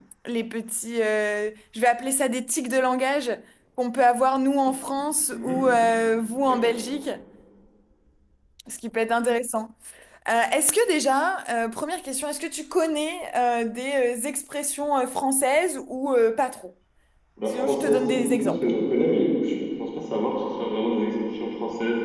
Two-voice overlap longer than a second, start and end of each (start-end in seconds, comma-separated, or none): 17.5-18.7